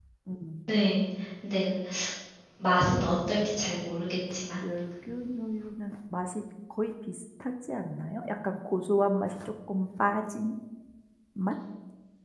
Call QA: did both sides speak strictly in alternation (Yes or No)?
Yes